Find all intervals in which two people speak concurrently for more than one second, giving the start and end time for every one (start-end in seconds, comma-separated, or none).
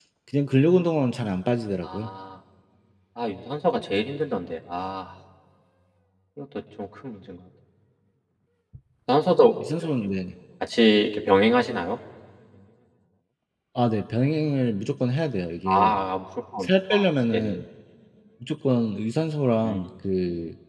none